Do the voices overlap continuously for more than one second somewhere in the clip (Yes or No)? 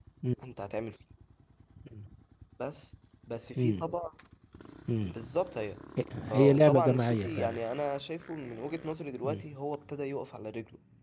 Yes